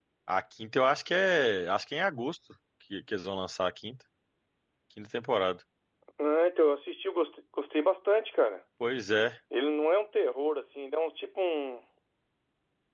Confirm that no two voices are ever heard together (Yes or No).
Yes